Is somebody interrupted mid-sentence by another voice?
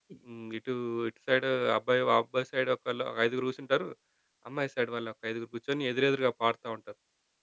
No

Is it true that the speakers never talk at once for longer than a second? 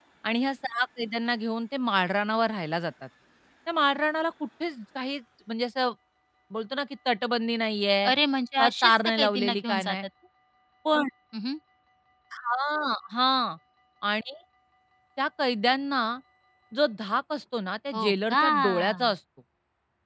No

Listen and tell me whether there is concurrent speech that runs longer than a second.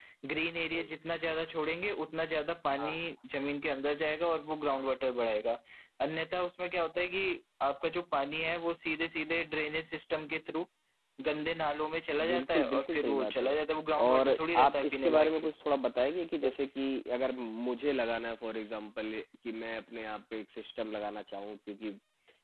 Yes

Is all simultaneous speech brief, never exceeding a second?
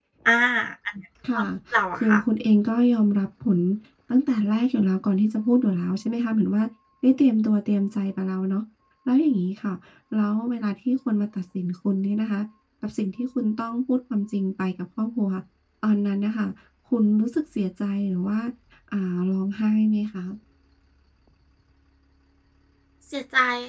Yes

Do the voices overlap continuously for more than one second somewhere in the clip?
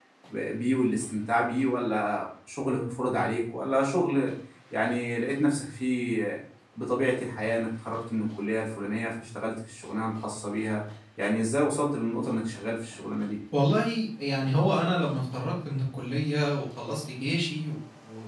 No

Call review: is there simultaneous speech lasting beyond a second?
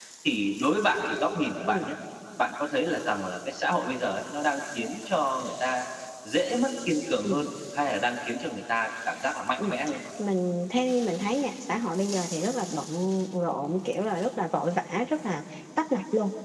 No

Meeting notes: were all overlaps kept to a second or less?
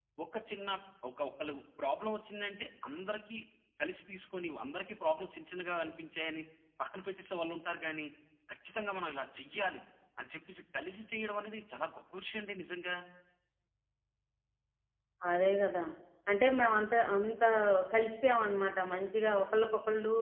Yes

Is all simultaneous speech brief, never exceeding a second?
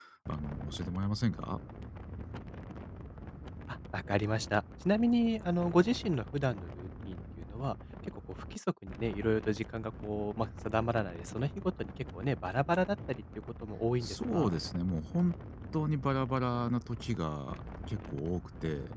Yes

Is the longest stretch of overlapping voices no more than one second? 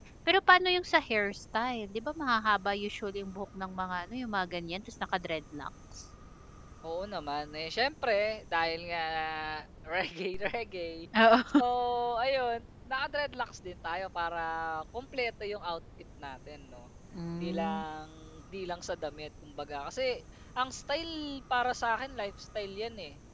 Yes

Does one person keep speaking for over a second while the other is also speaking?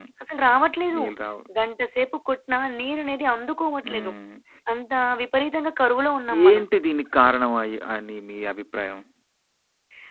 No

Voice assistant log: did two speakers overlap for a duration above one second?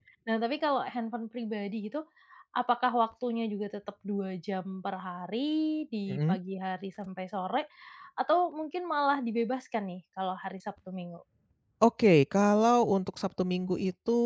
No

